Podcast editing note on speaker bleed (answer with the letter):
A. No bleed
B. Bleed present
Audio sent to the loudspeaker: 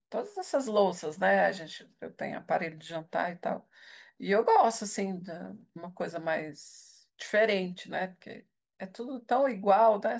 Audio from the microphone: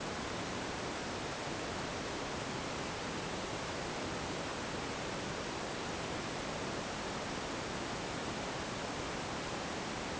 A